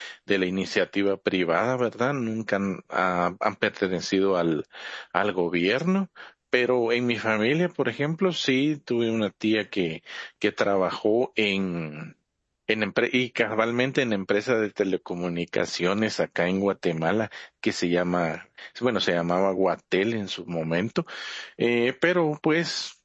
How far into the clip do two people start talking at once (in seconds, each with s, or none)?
none